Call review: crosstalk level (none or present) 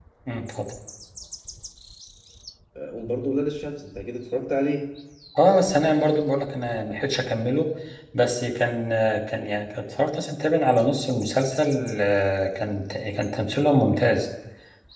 none